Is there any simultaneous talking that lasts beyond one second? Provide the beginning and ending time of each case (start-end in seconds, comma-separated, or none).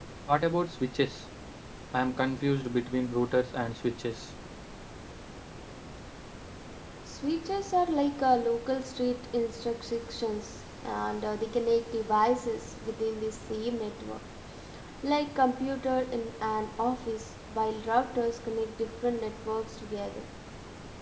none